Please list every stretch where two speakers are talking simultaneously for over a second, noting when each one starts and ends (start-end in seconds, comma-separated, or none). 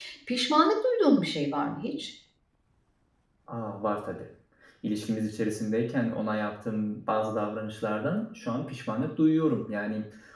none